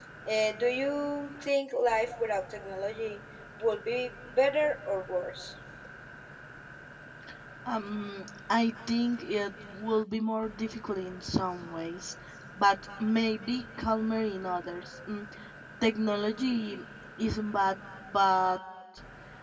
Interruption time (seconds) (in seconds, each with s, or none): none